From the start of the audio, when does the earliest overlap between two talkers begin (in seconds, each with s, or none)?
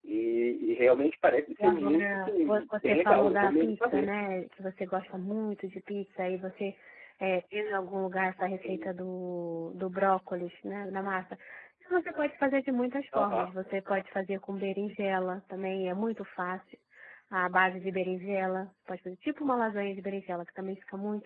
1.6 s